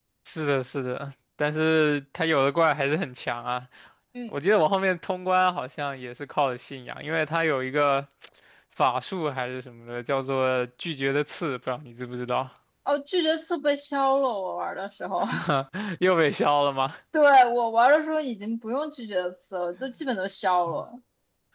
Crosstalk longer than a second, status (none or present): none